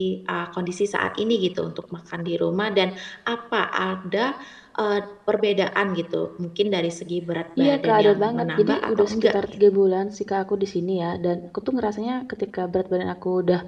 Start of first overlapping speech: 8 s

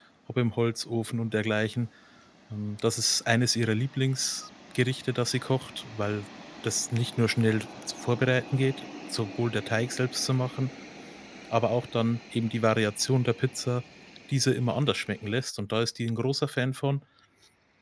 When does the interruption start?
none

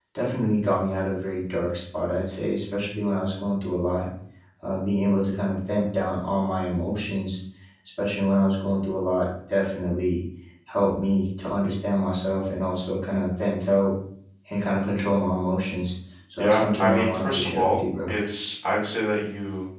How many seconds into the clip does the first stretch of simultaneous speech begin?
16 s

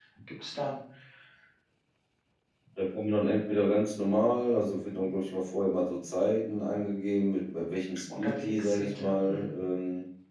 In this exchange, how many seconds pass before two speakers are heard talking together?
8 s

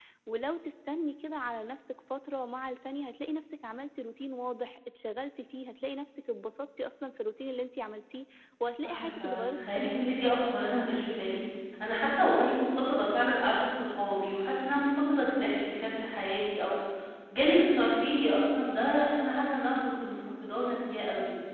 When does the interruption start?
9 s

